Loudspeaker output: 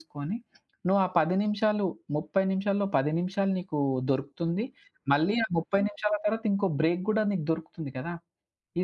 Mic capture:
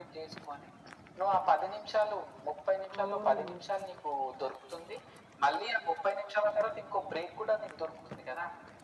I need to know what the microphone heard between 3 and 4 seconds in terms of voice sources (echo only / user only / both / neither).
both